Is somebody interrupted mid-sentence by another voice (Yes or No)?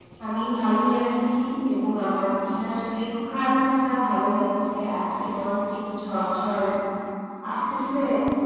No